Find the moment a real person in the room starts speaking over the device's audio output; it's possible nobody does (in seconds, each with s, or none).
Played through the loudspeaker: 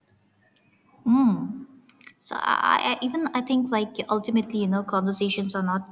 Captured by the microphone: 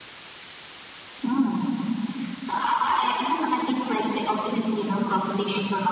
none